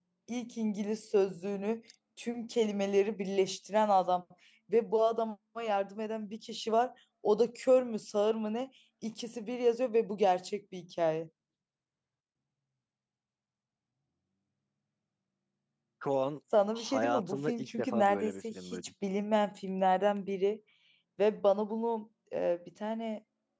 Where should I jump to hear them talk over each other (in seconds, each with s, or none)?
16.7 s